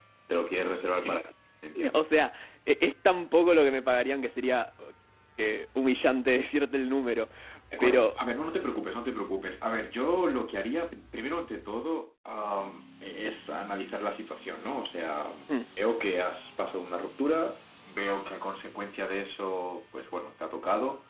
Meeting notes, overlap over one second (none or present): none